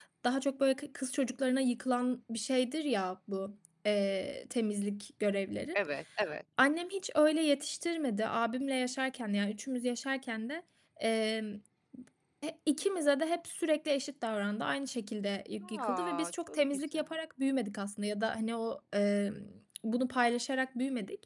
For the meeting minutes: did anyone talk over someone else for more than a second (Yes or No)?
Yes